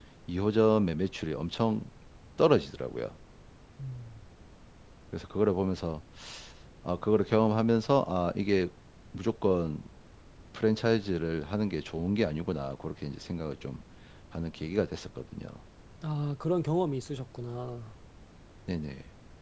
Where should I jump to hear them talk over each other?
none

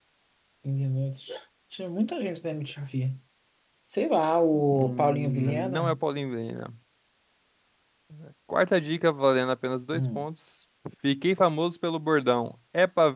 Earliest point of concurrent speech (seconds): 4.5 s

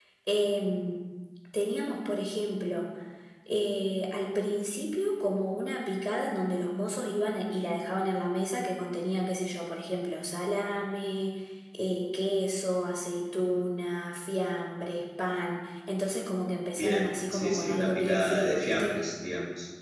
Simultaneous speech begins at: 16.8 s

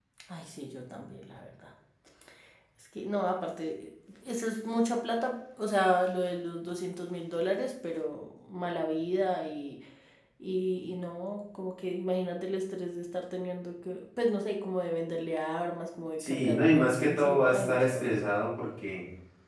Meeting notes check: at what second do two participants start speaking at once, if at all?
16.2 s

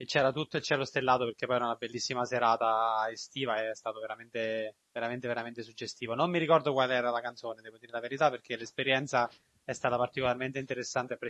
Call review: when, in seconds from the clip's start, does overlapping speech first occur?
none

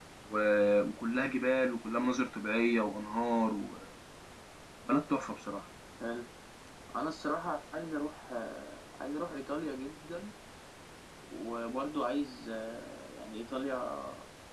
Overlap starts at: none

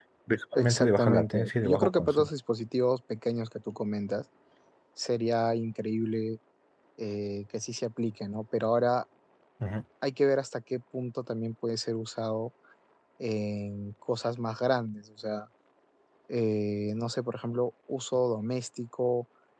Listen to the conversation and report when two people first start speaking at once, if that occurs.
0.6 s

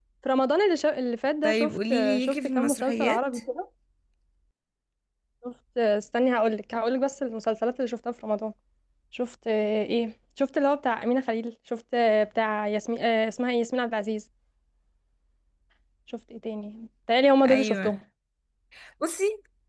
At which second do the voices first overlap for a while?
1.4 s

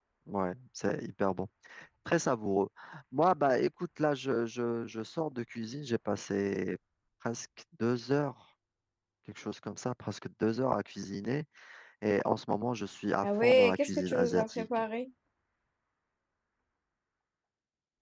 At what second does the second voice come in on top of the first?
13.2 s

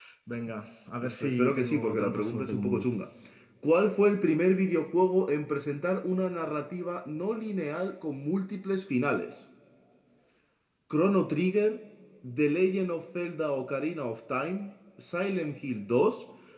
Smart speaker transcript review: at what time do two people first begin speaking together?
1.1 s

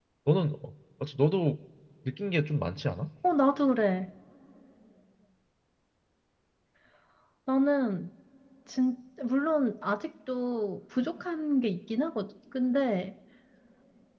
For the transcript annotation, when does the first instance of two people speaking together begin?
none

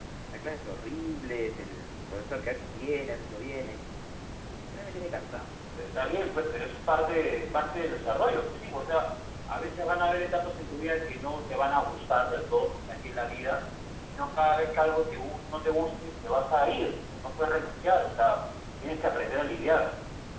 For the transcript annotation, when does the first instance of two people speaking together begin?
none

